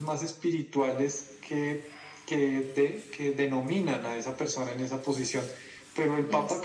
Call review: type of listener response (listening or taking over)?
listening